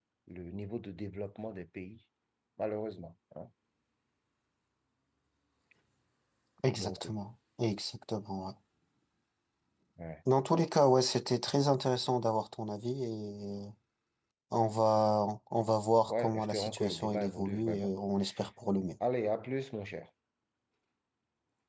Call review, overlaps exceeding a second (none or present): present